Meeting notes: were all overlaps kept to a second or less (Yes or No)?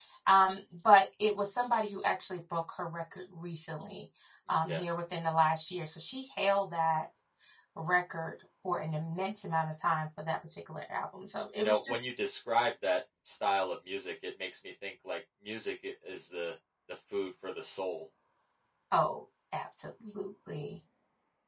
Yes